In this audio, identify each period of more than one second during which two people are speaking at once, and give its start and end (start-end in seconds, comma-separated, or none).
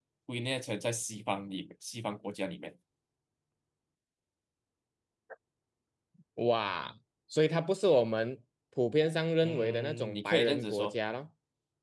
9.4-10.9